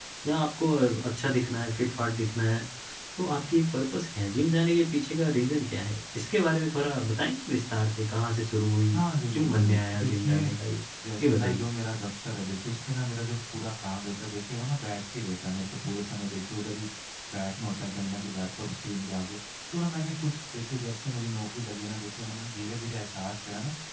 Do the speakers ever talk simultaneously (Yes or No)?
Yes